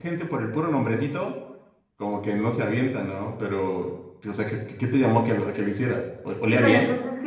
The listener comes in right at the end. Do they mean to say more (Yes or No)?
Yes